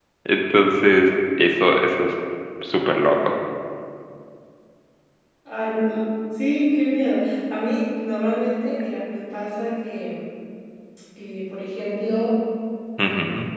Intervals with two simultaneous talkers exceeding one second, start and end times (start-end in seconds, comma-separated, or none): none